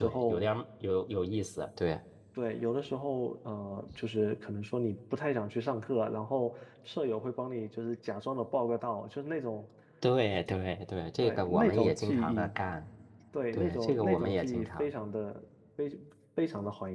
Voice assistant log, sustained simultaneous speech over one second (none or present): present